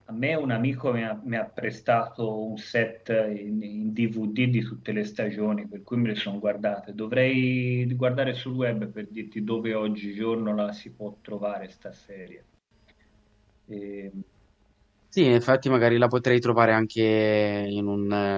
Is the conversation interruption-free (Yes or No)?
Yes